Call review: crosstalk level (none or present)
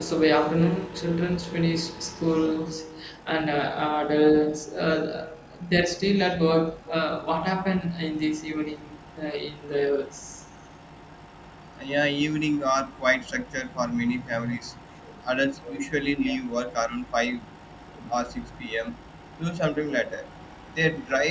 none